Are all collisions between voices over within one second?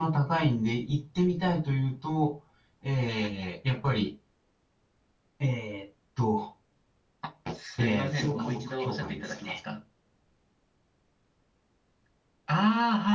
No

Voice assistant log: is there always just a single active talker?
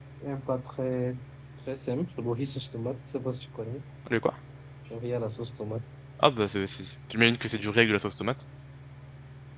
Yes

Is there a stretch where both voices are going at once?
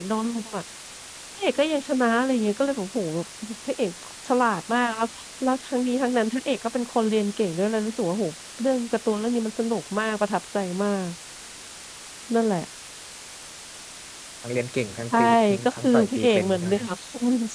Yes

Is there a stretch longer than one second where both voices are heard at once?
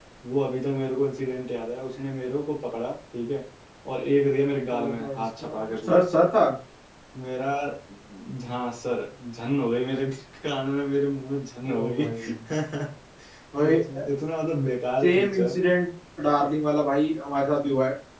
Yes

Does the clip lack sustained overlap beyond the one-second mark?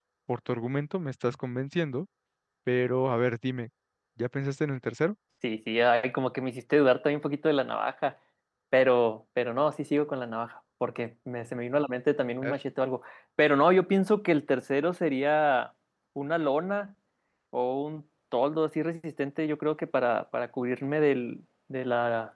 Yes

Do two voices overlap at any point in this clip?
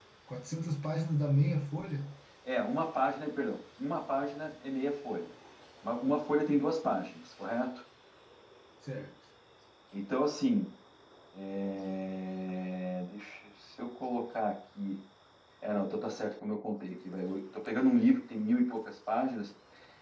No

